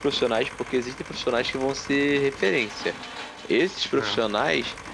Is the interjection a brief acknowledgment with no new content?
Yes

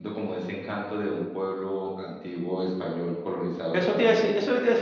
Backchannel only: No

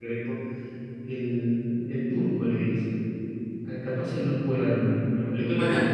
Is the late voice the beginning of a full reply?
Yes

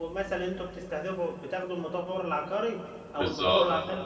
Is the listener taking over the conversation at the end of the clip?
No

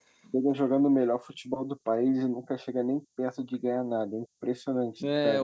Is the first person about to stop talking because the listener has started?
Yes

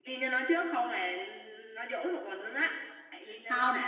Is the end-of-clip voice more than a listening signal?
No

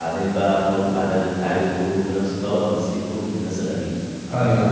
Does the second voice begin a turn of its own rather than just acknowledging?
Yes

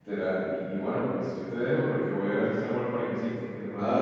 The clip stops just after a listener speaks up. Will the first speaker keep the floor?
Yes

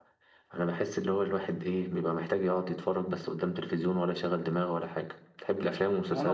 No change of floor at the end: No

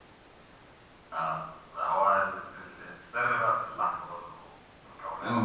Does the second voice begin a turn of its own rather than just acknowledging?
Yes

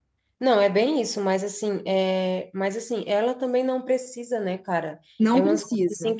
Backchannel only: Yes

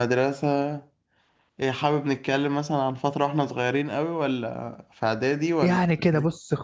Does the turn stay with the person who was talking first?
No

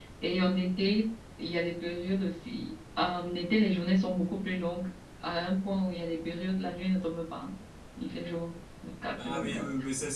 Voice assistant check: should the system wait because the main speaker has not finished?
No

